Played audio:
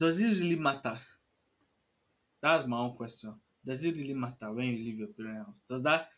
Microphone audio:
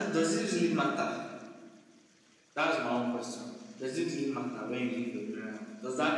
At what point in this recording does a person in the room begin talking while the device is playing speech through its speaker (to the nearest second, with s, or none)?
none